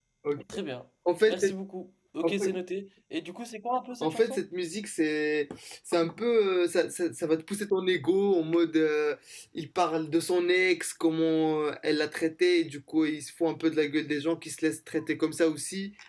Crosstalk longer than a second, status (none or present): none